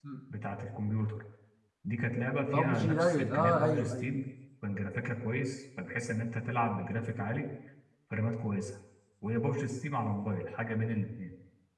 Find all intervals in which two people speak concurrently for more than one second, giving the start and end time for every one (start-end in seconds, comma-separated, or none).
2.5-4.1